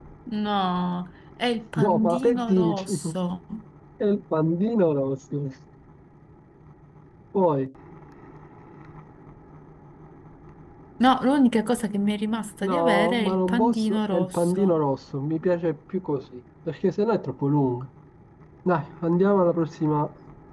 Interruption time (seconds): 1.8 s

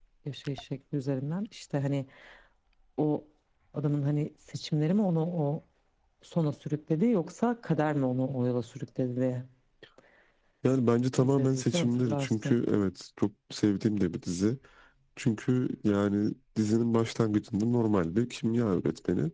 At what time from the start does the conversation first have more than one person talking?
11.1 s

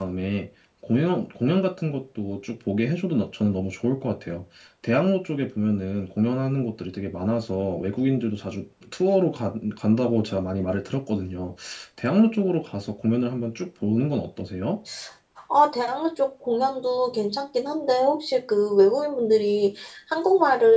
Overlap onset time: none

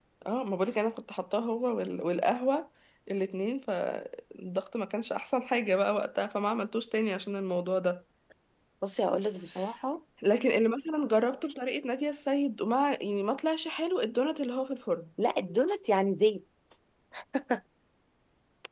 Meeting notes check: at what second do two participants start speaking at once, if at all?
none

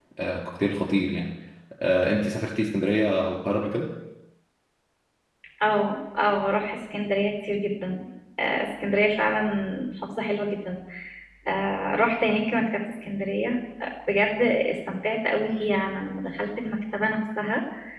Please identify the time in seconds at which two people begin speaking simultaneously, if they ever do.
none

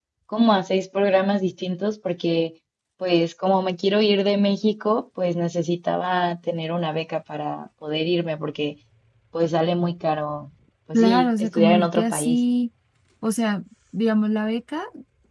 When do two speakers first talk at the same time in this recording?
10.9 s

